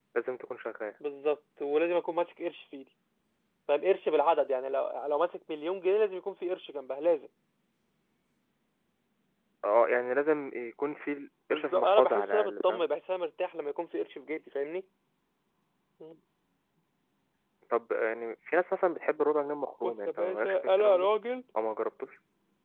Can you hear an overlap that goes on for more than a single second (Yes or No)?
Yes